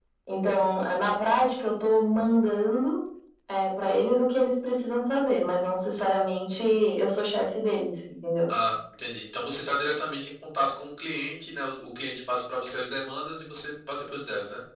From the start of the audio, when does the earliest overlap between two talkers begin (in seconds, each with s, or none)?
none